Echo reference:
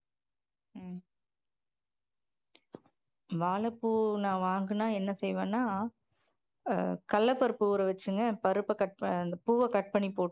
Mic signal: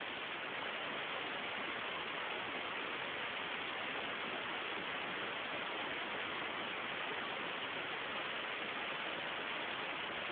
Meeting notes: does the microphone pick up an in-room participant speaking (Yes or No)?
No